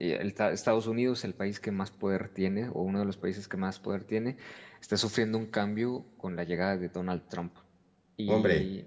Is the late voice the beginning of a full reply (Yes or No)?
Yes